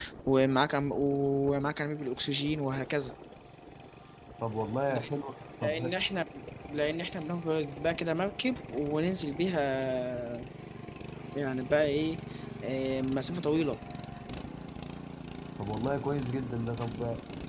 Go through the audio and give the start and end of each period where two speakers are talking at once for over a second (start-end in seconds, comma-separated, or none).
none